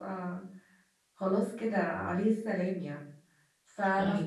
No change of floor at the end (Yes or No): Yes